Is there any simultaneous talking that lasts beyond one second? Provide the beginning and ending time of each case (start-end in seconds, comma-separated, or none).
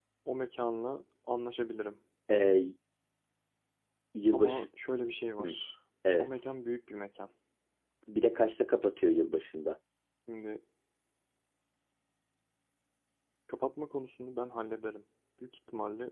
none